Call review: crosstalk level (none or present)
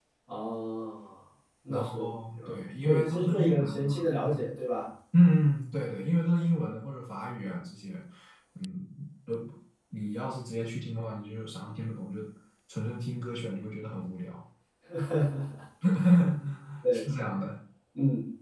present